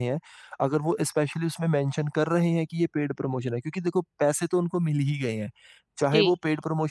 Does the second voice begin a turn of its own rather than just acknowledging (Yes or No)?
No